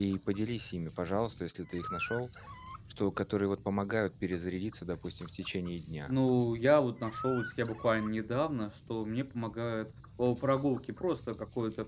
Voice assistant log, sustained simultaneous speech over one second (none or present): none